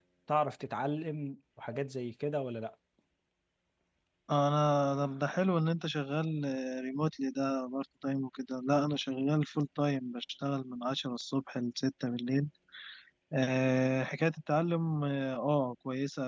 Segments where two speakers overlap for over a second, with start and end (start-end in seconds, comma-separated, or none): none